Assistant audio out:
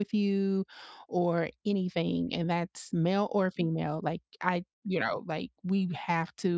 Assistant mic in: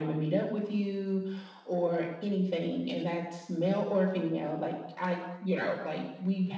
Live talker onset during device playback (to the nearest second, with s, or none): none